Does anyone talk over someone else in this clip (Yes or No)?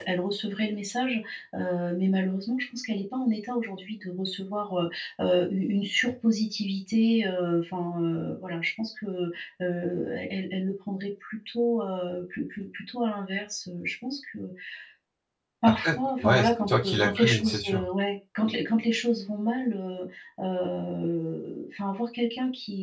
Yes